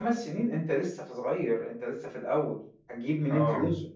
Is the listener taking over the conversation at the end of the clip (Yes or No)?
No